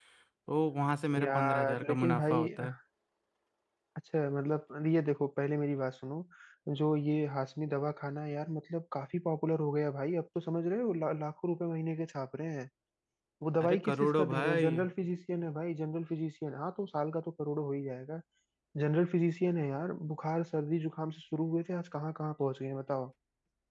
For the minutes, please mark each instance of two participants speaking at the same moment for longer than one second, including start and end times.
1.2-2.5, 13.6-14.8

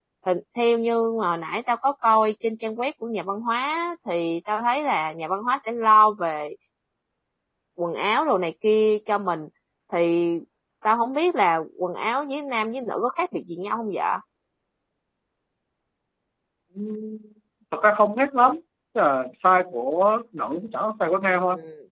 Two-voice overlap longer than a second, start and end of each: none

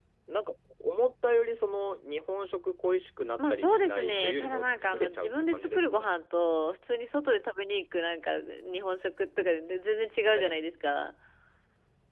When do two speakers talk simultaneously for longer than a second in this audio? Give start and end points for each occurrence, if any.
3.4-6.1

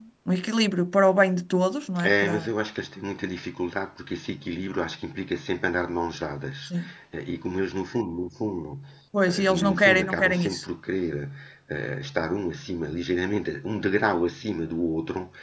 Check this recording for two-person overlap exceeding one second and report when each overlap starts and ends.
9.4-10.7

